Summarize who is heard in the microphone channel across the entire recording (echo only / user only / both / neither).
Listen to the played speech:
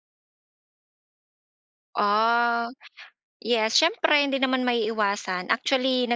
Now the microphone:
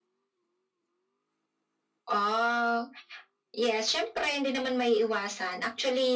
echo only